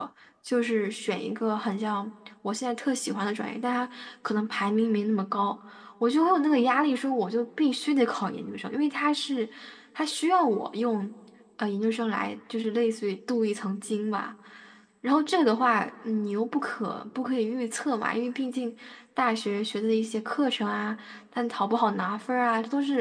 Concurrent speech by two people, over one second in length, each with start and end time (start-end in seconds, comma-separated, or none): none